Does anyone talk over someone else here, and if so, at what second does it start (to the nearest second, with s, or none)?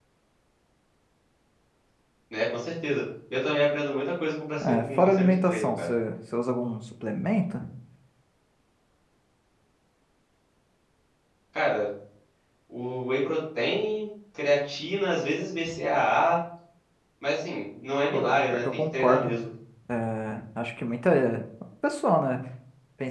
5 s